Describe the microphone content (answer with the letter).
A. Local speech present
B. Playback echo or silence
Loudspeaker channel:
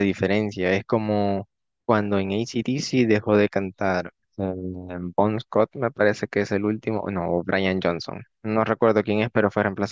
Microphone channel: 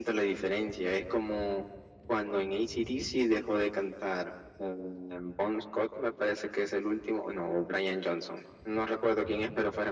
B